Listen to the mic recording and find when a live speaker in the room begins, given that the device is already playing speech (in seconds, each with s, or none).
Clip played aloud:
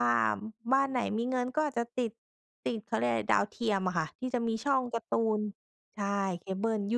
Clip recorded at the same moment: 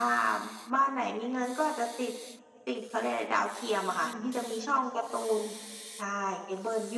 4.0 s